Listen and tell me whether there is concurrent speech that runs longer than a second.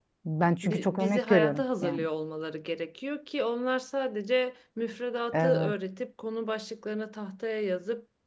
Yes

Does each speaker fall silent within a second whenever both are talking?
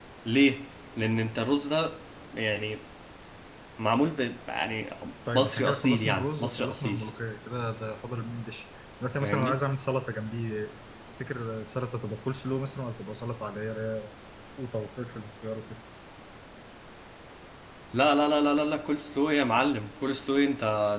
No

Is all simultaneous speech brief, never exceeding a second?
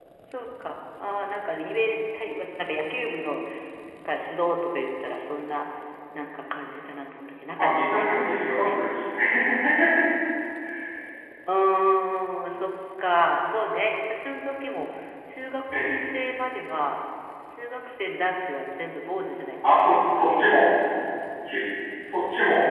No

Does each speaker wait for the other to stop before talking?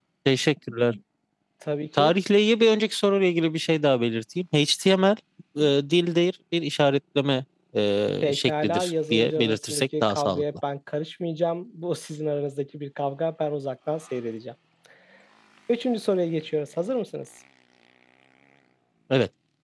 No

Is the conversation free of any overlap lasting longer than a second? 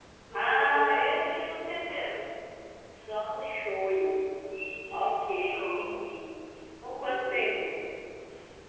No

